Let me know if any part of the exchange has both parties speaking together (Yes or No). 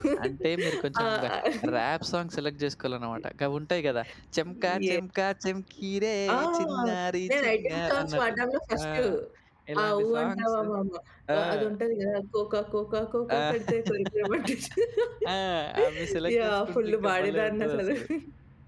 Yes